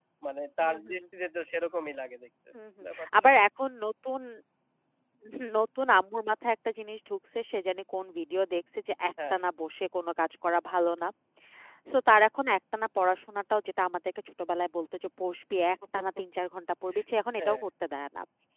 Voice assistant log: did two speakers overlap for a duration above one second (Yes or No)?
No